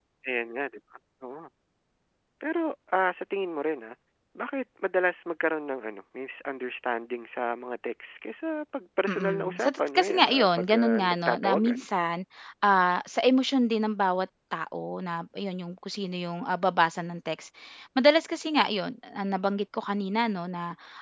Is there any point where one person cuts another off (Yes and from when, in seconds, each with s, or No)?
Yes, from 9.1 s